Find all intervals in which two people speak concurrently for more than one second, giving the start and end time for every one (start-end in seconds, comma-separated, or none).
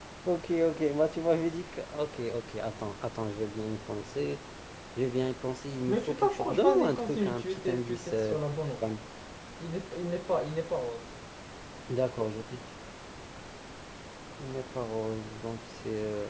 6.0-8.3